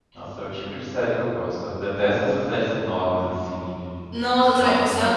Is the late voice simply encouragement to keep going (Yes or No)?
No